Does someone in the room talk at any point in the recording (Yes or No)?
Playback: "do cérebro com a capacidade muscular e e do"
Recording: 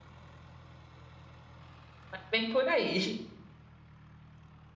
Yes